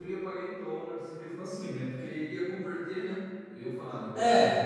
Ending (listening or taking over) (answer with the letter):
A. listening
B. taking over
B